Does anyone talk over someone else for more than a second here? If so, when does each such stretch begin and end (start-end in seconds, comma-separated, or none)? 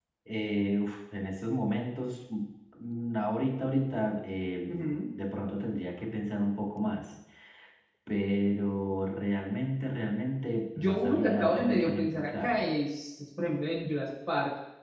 10.8-12.7